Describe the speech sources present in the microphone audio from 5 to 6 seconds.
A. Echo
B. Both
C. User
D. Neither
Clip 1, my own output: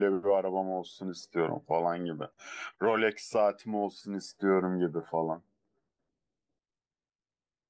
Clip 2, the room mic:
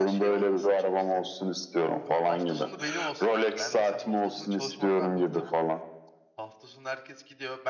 B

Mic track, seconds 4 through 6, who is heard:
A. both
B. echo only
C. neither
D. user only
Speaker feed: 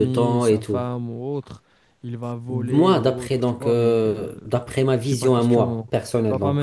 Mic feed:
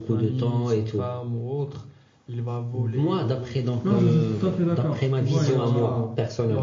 A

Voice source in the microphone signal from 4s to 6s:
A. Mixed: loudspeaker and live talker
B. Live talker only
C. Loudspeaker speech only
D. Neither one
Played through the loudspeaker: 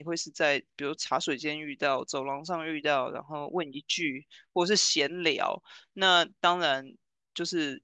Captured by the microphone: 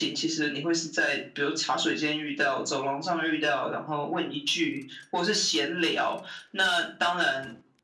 C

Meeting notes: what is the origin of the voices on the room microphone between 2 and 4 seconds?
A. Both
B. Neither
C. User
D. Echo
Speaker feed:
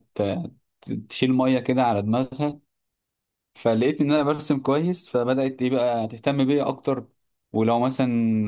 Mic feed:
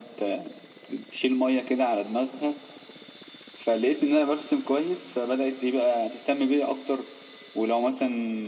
D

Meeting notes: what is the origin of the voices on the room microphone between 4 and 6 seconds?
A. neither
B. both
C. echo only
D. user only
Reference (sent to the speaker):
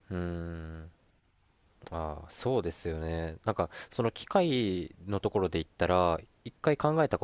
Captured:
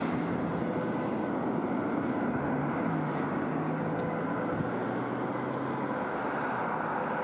A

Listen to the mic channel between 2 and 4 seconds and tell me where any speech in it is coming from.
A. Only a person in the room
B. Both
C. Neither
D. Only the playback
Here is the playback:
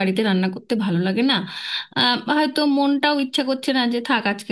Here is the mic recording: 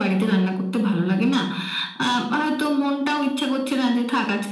D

